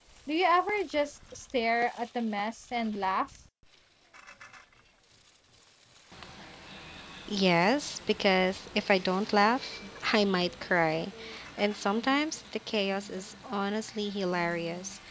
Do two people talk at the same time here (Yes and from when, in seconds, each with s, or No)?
No